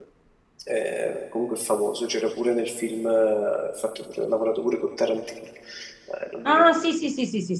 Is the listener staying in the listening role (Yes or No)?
No